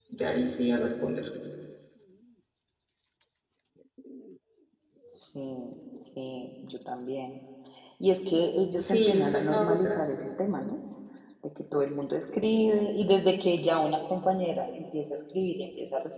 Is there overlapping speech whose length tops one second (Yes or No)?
Yes